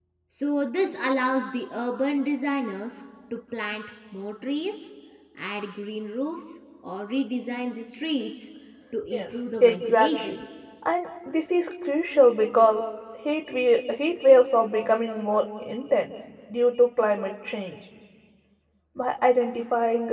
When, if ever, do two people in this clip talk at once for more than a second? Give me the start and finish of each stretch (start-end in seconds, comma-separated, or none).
9.1-10.3